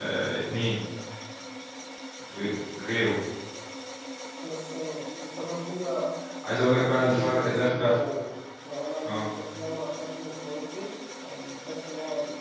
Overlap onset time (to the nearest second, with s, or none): 7 s